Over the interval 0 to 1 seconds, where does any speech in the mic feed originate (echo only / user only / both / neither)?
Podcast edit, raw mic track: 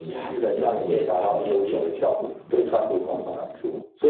both